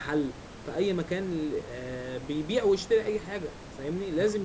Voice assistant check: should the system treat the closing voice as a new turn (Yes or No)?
No